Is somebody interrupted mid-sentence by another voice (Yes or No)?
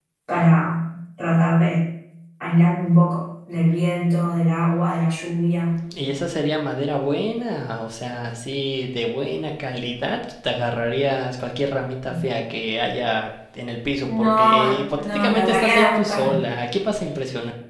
Yes